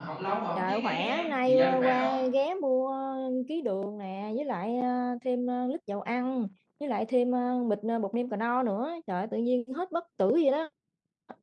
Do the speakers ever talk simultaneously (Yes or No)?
Yes